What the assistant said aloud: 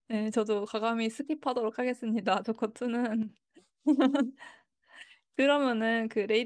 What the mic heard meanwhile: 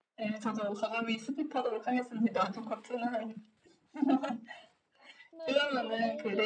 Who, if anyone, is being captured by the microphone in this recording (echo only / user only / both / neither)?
both